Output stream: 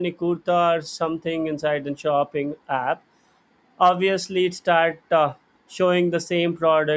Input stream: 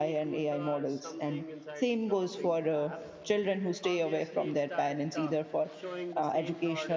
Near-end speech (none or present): present